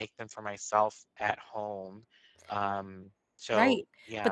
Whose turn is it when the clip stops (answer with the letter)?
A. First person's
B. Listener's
B